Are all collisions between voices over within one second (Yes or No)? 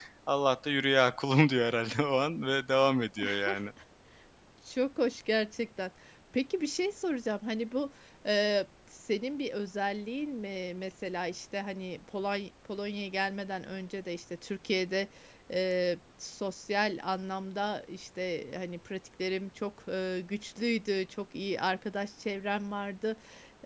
Yes